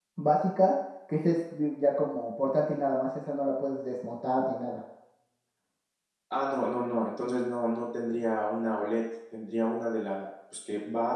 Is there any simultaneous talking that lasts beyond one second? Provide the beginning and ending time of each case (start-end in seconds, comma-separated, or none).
none